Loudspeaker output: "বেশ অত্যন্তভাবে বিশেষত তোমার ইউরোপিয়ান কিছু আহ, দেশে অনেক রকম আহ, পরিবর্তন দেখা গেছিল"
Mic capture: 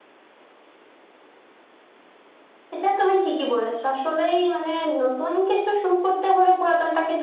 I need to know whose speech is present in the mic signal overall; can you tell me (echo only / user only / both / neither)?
user only